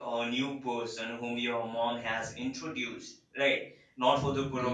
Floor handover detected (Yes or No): No